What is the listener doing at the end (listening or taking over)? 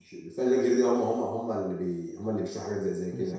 taking over